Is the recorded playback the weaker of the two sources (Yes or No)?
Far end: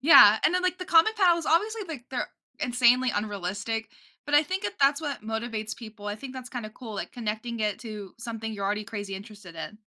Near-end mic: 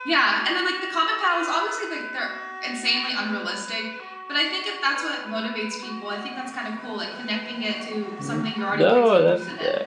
Yes